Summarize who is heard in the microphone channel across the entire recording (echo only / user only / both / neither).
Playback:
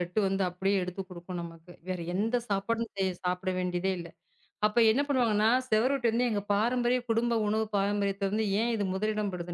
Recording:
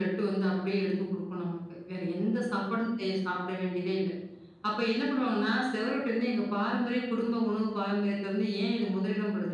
echo only